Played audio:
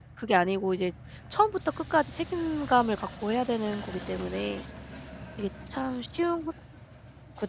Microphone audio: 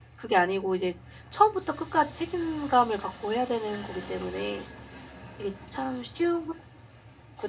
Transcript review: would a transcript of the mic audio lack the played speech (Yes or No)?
No